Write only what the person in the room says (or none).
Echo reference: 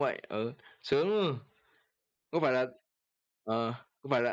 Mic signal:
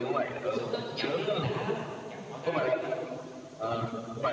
Mà sướng lắm, dậm lên đã lắm, dậm cỏ gai nữa chứ.